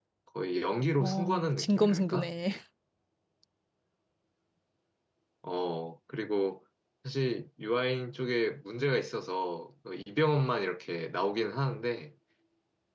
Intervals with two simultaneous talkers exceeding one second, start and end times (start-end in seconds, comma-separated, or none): 1.0-2.3